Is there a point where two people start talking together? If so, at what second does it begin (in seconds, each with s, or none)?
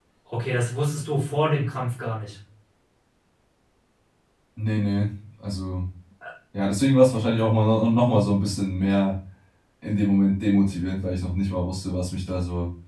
none